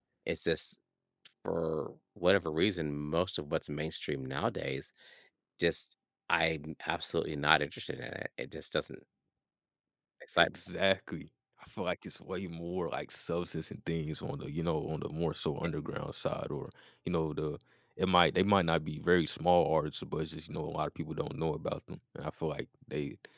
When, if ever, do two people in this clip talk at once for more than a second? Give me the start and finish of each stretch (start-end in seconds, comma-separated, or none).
none